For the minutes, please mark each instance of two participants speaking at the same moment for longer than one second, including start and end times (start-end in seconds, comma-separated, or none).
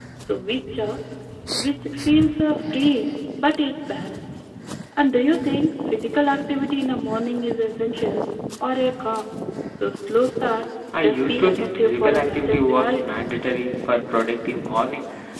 11.0-13.2